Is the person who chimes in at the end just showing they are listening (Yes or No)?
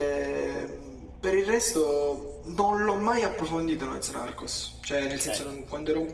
Yes